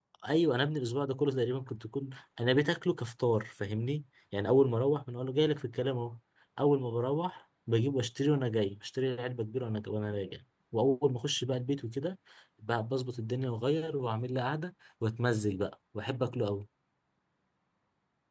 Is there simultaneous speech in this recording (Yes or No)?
No